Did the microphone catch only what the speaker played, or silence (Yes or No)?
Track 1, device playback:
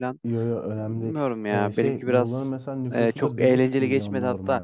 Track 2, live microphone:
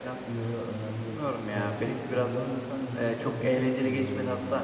Yes